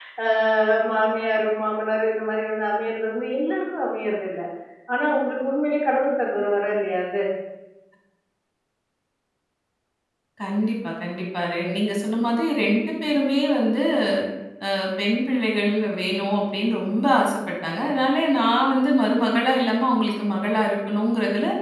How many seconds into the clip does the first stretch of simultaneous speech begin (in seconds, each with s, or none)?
none